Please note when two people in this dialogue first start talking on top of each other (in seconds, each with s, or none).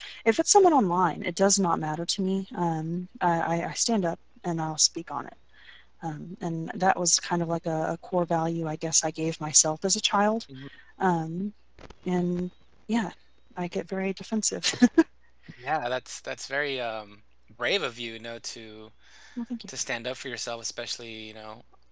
none